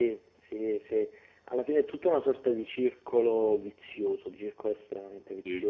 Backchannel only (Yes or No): Yes